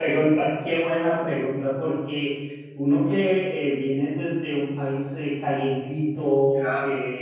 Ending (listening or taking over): listening